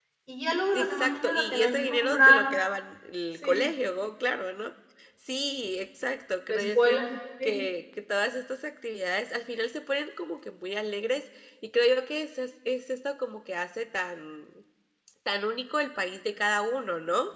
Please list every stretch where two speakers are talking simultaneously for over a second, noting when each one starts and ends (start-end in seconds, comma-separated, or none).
0.7-2.4